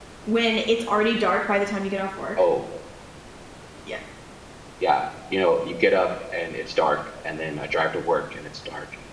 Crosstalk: none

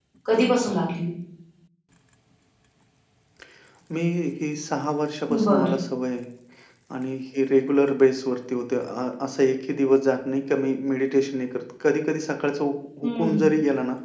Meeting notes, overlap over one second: none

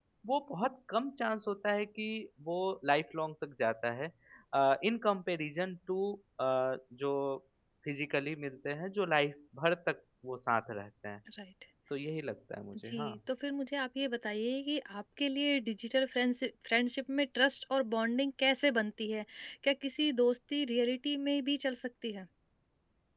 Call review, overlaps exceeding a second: none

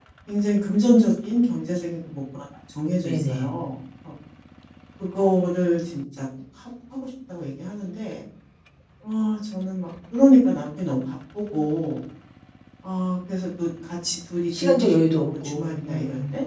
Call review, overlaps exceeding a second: present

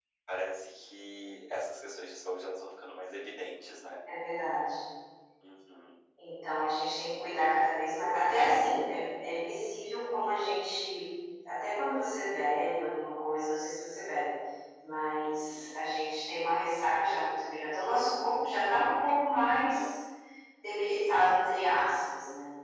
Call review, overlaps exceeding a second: none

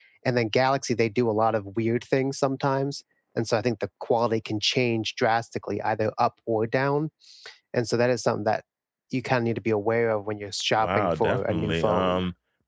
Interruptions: present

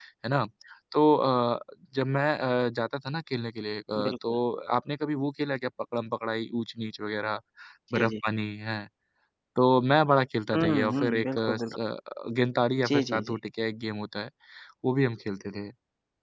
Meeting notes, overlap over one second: present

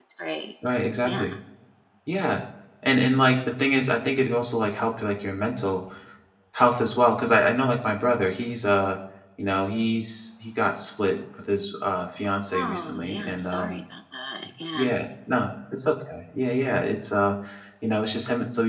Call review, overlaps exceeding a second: present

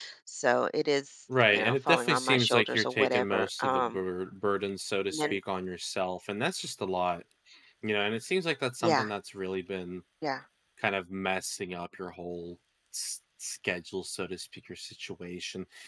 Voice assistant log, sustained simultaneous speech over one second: present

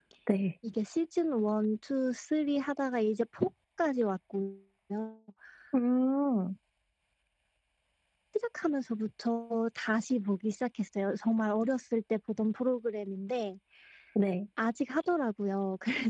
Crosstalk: none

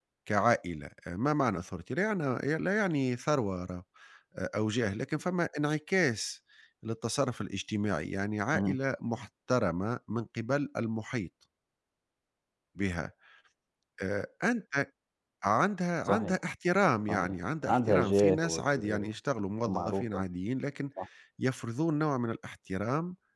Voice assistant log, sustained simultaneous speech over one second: present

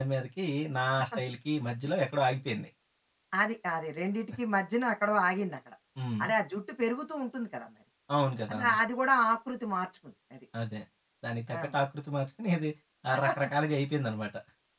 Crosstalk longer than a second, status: none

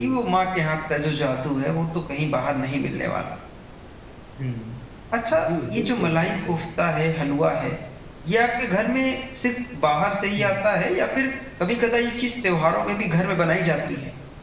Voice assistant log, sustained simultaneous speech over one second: present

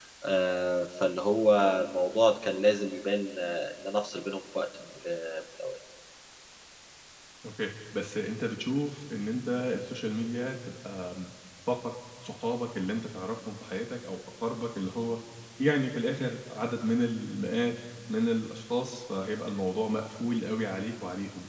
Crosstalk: none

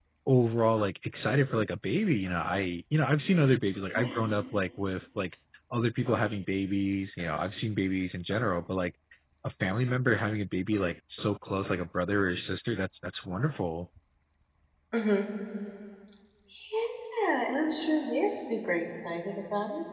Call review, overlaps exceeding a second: none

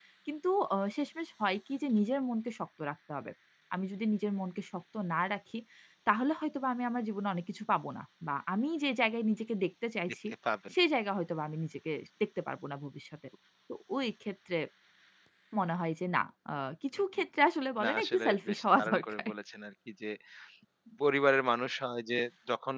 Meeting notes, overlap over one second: present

